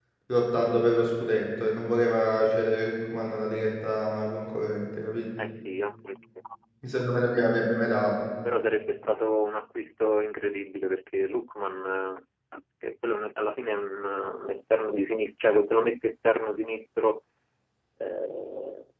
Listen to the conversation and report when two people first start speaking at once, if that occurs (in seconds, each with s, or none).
none